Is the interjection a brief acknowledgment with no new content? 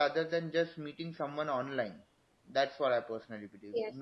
No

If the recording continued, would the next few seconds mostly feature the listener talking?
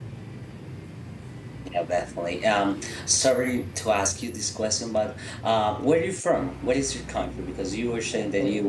No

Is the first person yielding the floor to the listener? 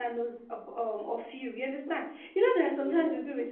No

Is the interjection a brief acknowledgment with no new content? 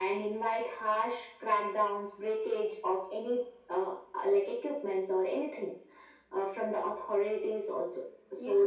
No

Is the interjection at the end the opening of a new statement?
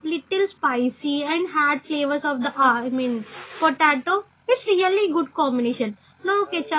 No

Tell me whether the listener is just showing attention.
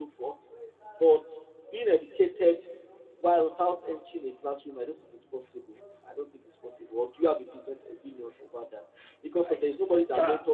Yes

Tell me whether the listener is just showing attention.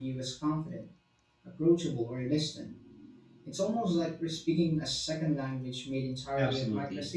No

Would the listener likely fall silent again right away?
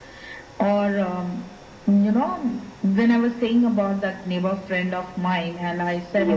Yes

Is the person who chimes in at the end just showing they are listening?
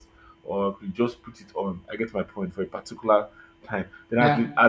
Yes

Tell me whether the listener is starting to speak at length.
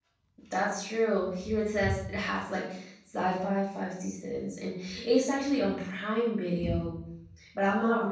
No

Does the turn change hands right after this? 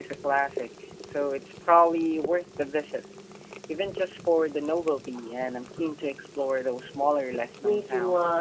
Yes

